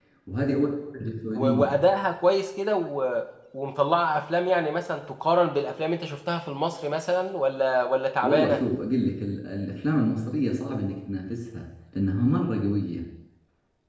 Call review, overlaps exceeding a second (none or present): none